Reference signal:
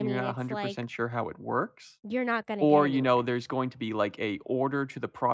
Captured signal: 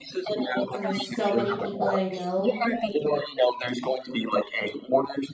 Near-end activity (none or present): present